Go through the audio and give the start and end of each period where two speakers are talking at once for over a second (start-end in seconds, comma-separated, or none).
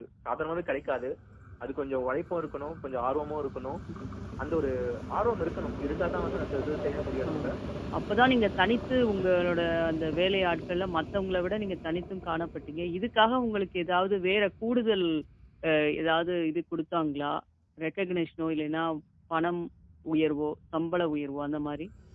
none